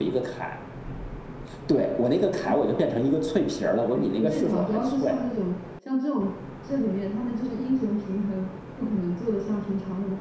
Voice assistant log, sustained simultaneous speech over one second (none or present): present